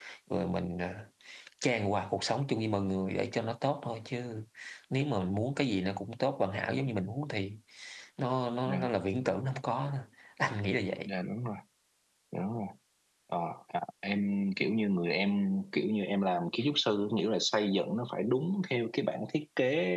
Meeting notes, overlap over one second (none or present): none